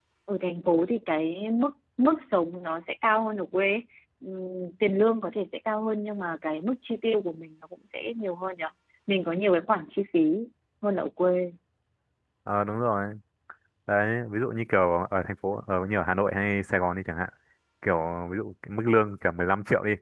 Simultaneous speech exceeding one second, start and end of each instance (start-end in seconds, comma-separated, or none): none